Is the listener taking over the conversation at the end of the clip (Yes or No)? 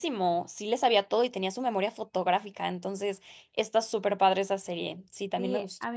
Yes